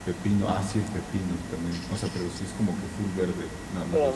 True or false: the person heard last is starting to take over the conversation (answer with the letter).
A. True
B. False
A